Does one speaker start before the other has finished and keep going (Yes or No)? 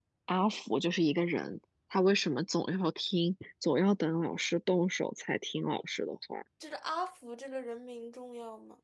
No